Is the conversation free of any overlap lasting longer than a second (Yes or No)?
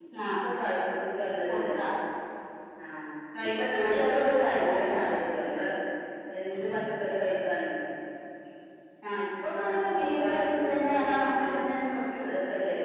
No